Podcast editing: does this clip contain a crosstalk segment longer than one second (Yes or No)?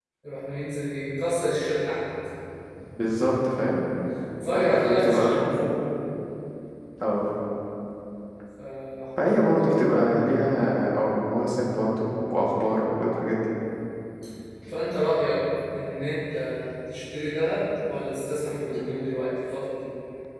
Yes